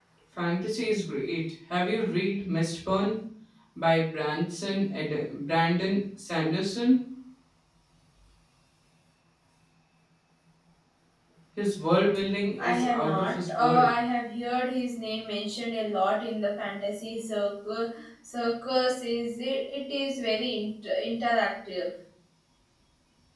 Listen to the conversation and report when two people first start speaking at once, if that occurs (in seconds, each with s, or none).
12.6 s